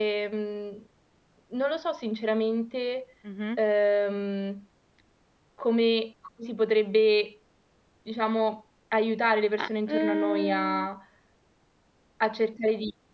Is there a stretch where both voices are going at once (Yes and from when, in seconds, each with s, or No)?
Yes, from 9.6 s